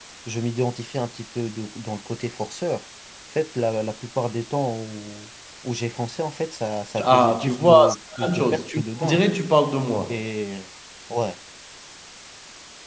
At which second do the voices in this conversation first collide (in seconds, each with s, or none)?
7.0 s